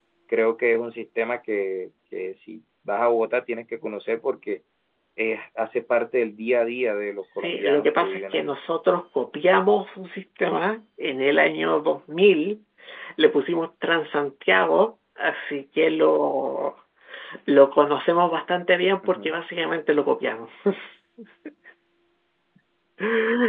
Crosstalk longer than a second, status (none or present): present